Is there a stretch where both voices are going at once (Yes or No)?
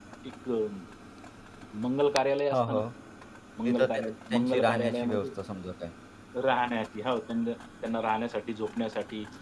Yes